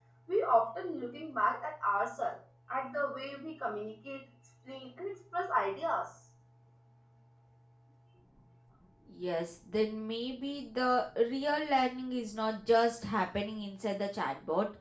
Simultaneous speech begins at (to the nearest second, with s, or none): none